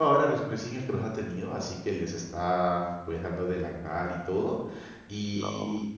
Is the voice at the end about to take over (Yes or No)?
No